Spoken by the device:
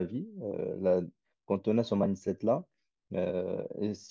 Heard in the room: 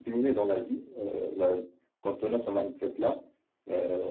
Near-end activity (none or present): none